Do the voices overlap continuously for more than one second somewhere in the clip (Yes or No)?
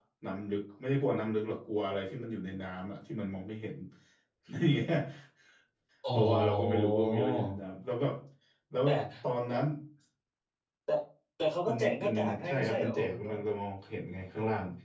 Yes